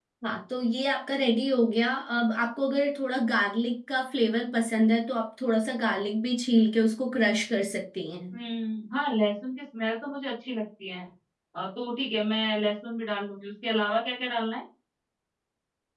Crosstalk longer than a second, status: none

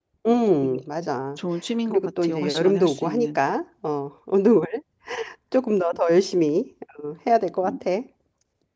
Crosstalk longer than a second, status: present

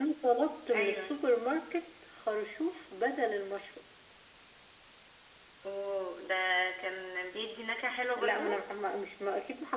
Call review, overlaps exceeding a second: none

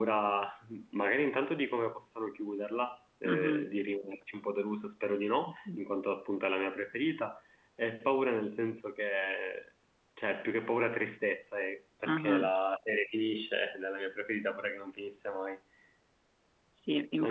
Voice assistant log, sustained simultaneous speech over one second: none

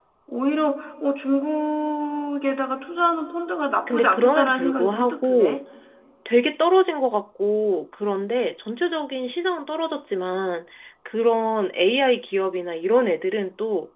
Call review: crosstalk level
present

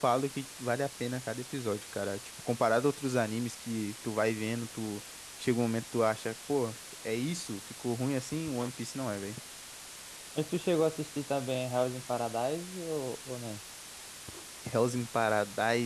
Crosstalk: none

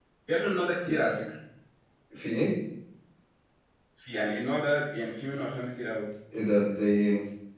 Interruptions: none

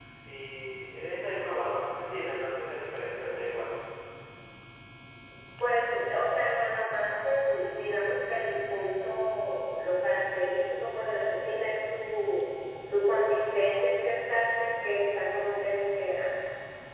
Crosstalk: none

